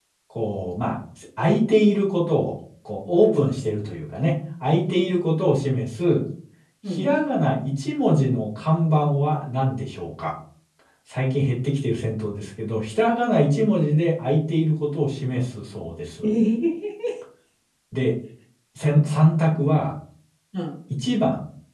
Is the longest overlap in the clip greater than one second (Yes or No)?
No